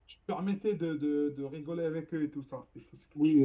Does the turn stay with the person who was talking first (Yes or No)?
No